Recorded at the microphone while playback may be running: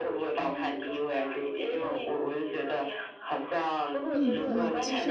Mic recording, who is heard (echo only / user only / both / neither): both